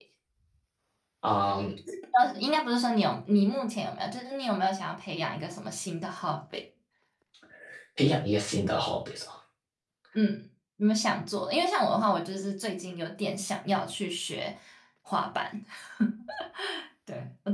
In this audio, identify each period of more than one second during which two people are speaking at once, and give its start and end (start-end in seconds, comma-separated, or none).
none